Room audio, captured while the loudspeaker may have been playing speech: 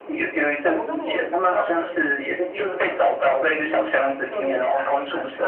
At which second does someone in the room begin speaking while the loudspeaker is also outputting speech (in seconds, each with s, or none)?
0.6 s